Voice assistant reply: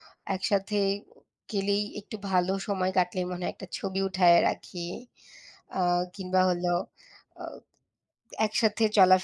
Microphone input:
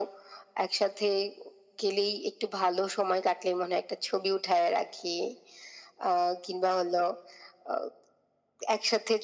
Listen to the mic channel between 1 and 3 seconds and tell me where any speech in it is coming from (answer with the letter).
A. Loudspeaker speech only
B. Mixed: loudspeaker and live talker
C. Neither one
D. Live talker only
A